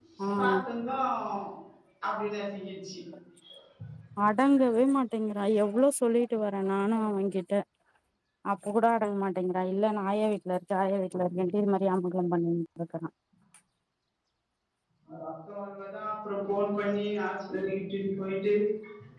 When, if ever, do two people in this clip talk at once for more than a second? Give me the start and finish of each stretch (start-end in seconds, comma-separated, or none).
none